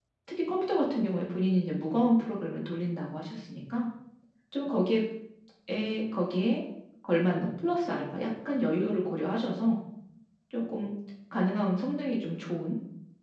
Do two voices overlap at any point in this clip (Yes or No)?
No